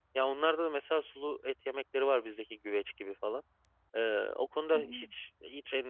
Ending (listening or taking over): listening